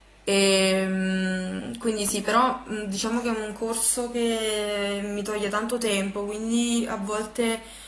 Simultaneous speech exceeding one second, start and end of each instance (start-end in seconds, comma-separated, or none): none